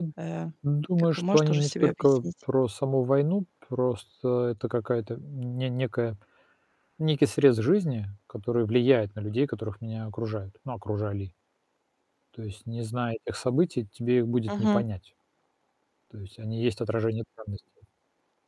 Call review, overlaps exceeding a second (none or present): present